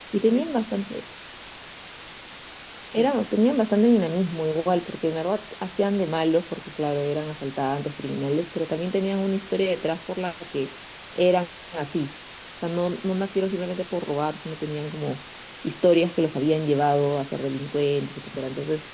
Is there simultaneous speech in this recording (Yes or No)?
No